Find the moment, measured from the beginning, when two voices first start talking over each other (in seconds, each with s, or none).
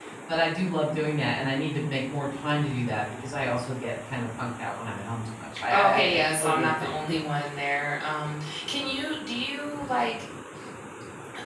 5.7 s